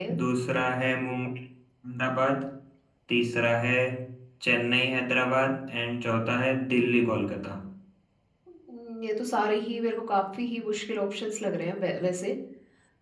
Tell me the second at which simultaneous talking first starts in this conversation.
none

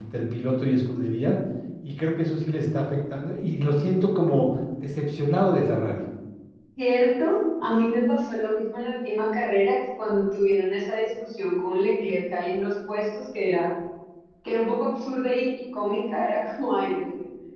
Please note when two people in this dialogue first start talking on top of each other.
none

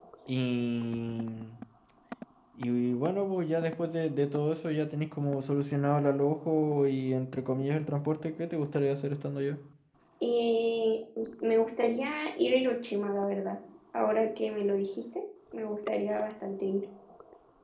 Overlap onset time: none

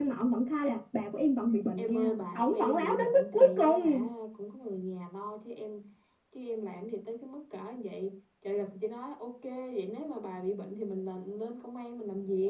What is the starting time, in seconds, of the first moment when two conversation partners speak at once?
2 s

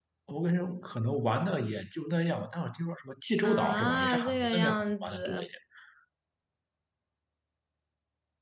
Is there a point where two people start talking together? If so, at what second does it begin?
3 s

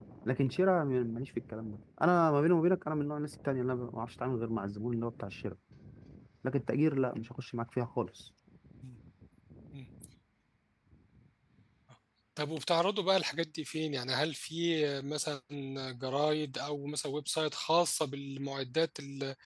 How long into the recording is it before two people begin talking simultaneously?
none

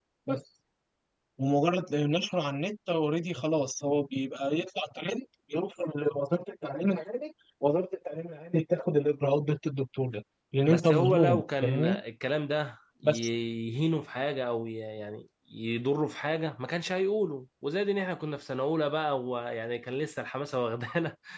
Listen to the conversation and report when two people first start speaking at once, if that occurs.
11 s

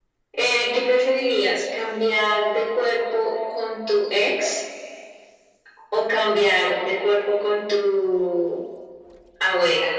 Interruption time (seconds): none

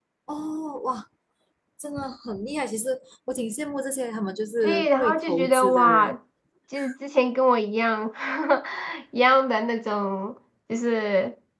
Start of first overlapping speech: 5 s

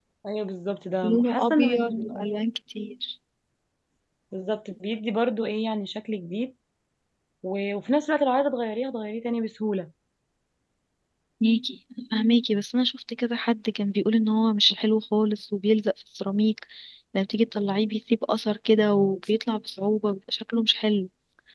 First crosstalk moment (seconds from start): 1 s

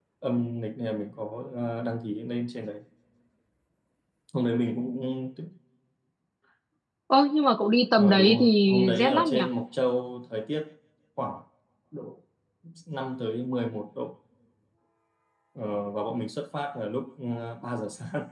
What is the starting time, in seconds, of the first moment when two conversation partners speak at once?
8 s

